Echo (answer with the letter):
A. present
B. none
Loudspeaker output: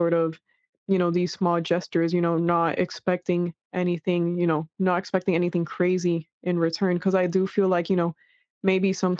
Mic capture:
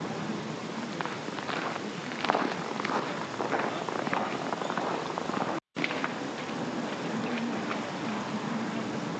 B